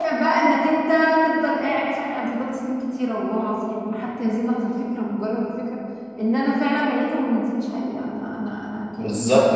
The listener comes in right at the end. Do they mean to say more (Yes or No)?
Yes